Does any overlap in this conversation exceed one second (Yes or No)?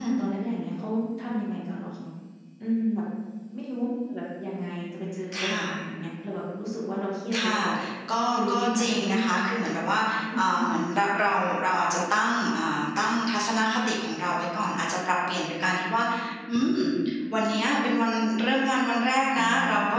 Yes